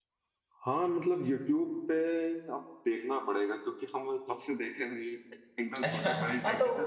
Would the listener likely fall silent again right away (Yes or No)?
No